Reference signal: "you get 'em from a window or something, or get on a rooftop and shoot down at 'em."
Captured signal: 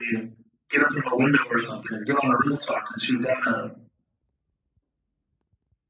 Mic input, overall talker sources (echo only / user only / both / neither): echo only